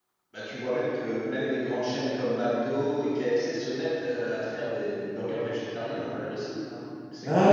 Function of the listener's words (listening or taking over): taking over